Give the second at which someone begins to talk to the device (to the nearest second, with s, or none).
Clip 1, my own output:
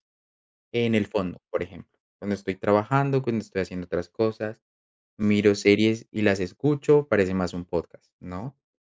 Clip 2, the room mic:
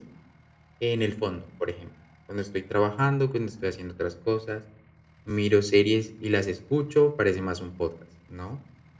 none